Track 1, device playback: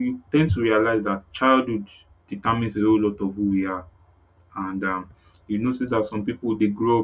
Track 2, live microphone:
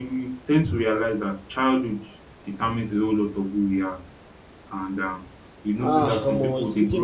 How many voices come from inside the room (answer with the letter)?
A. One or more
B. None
A